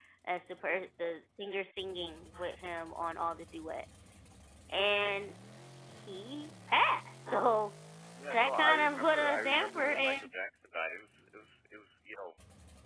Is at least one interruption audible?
Yes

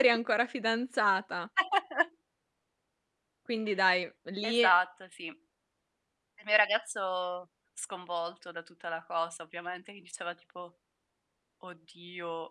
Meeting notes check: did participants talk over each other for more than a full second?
No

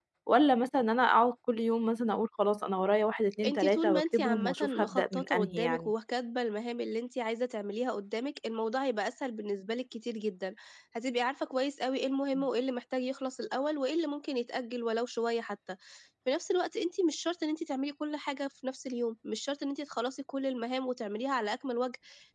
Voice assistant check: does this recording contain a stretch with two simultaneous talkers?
Yes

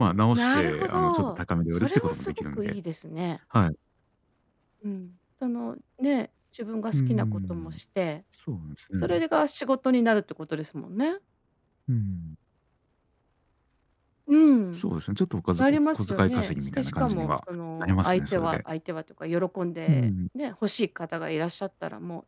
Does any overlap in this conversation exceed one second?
Yes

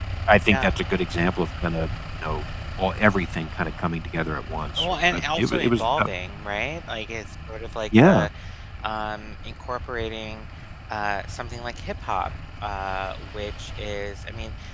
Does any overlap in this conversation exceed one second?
Yes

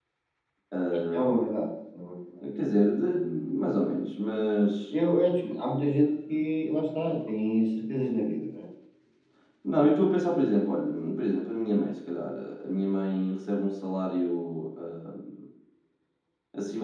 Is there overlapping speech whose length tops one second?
No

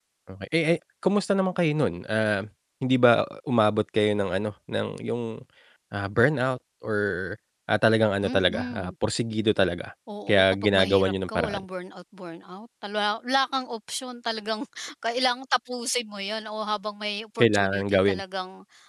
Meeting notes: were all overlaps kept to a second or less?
No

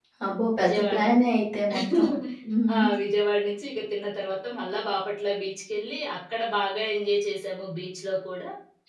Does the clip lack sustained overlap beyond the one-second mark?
Yes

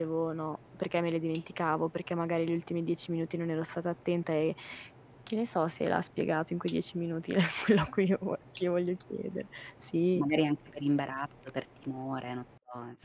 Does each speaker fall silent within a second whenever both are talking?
Yes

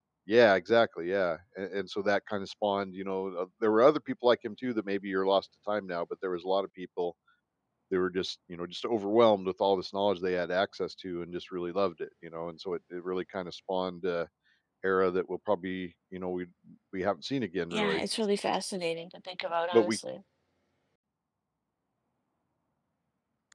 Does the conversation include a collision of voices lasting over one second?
No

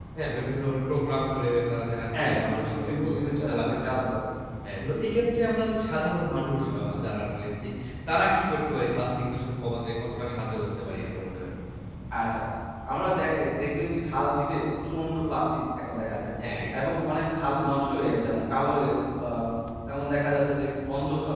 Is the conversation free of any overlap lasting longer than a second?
No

